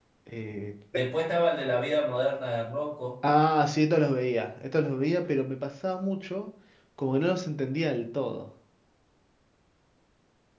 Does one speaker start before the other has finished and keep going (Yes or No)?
No